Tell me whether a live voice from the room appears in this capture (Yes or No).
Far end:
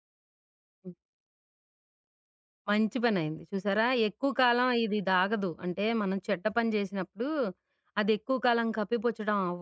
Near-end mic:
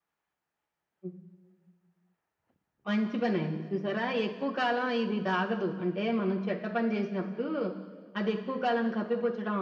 No